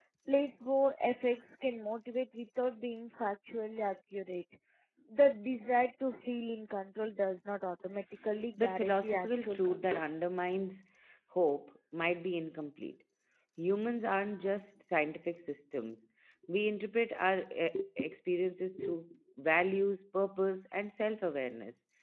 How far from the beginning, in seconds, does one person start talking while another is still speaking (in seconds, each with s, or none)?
8.6 s